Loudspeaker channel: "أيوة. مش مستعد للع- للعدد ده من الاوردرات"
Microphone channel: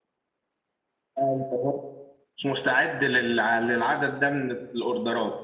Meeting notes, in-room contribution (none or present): none